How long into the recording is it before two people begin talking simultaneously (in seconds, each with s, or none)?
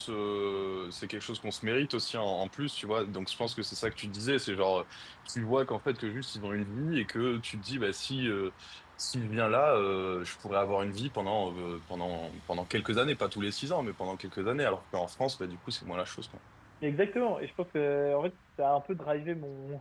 none